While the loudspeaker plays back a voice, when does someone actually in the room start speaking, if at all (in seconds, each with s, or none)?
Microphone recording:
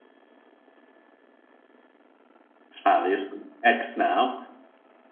2.9 s